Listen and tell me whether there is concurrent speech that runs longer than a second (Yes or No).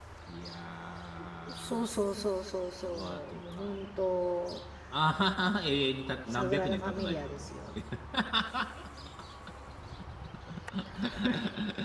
Yes